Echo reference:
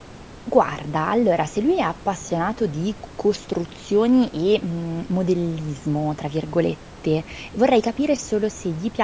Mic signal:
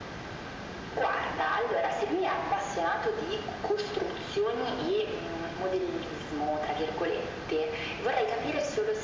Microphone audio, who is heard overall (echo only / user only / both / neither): echo only